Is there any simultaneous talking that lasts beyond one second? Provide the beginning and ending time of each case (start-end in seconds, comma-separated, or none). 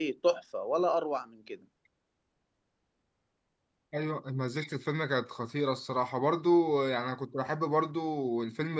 none